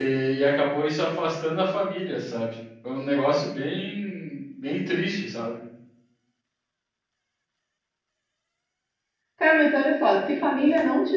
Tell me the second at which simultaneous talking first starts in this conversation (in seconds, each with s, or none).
none